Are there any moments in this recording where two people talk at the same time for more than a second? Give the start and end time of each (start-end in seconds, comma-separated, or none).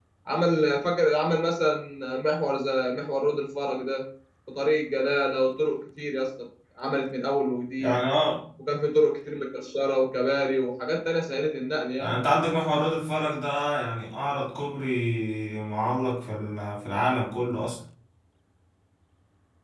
none